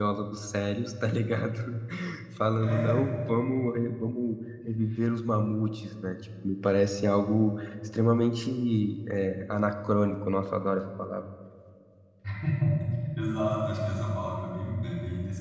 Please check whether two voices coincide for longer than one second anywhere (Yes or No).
No